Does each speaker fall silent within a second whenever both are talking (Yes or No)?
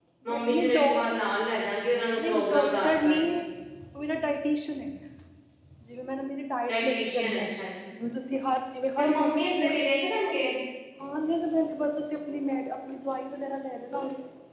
No